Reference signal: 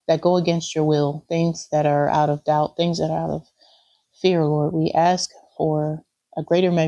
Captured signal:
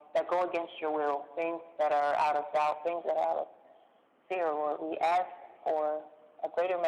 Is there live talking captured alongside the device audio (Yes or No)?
No